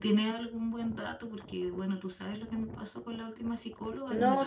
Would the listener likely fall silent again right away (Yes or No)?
No